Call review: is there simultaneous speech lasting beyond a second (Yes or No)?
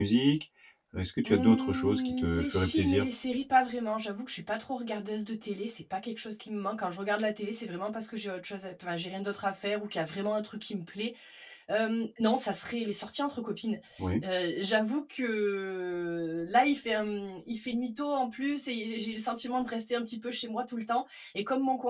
Yes